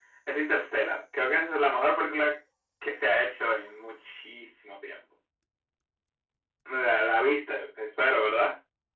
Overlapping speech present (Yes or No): No